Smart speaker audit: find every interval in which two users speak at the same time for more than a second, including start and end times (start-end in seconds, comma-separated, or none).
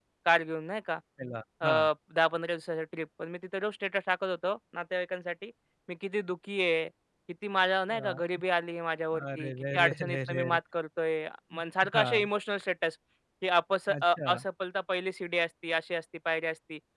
9.2-10.4